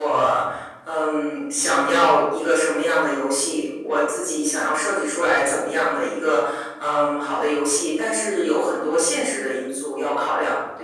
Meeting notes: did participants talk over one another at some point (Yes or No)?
No